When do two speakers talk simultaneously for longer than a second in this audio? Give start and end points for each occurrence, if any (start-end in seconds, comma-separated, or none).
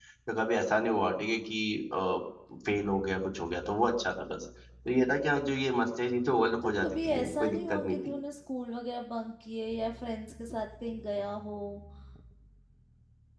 6.6-8.1